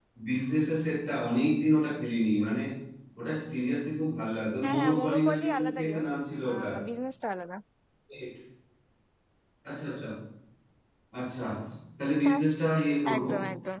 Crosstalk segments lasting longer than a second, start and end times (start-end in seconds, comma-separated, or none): 4.6-6.1